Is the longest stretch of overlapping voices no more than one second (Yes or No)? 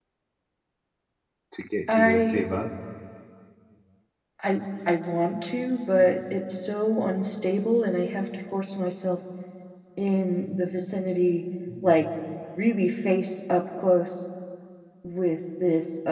Yes